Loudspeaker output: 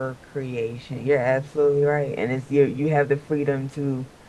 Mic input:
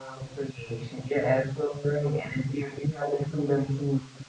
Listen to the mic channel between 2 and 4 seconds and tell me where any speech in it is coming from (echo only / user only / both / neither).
echo only